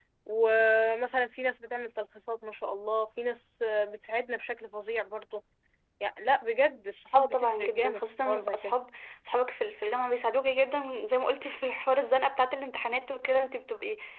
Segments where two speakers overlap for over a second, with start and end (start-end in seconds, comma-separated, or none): 7.1-8.7